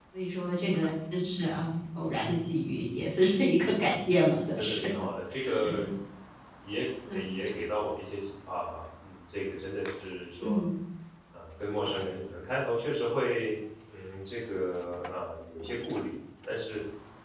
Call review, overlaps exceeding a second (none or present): none